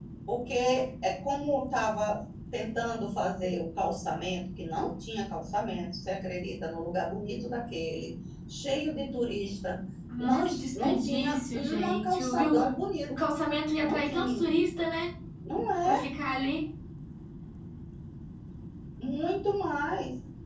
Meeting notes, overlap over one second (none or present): present